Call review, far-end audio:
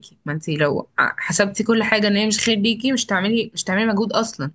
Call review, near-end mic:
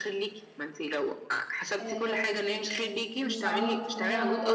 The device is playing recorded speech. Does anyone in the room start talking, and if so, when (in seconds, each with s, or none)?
1.8 s